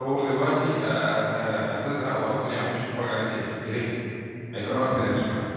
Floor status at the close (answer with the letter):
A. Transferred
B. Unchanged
A